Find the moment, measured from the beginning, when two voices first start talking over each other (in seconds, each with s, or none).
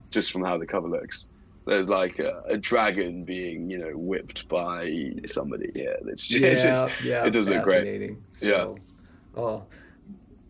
6.3 s